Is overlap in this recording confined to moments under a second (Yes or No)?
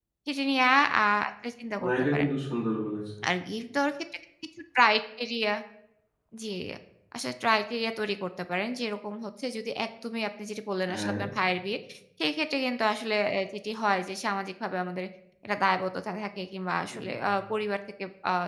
Yes